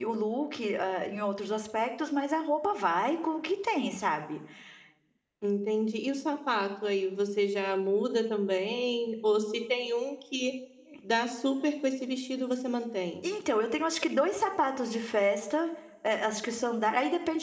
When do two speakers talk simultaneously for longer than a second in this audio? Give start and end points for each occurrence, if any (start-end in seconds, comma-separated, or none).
none